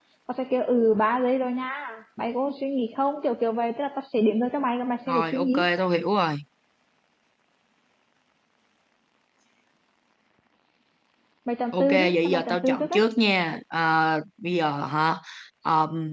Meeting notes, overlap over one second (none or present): present